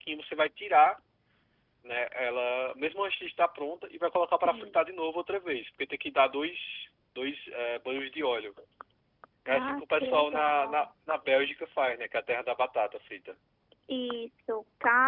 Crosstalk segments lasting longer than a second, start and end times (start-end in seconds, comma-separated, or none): 9.5-10.9